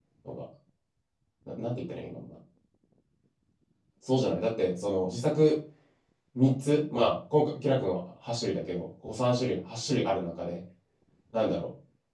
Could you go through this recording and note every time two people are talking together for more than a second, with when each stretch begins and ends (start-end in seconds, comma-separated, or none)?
none